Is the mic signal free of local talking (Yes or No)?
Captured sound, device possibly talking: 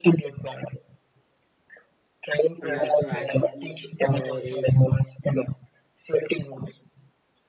No